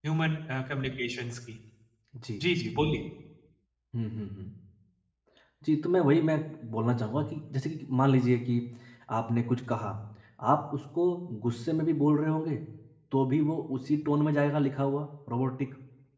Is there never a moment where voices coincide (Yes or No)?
Yes